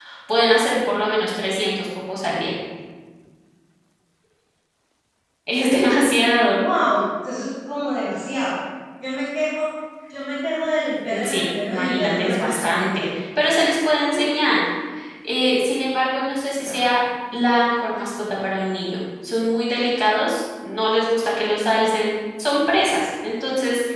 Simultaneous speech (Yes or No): Yes